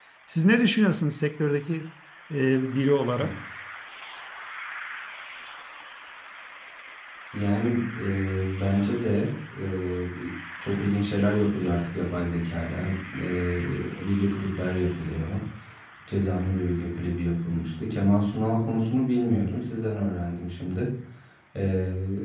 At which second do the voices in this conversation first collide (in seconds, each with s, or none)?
none